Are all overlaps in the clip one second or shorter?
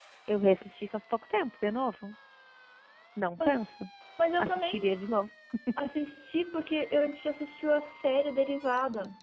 Yes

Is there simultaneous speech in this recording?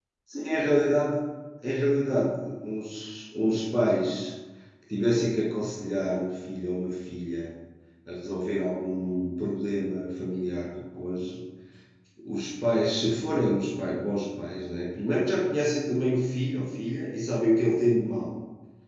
No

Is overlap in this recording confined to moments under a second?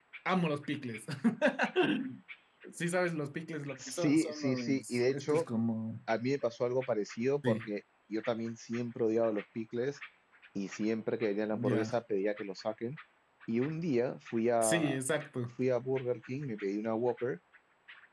No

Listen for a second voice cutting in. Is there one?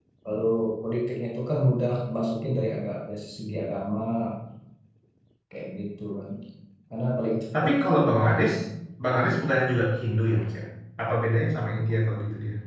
No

